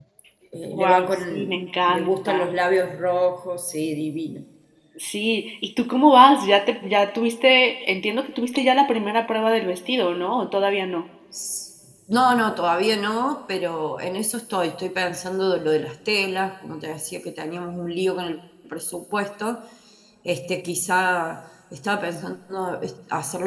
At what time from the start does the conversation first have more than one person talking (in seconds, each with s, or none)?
0.8 s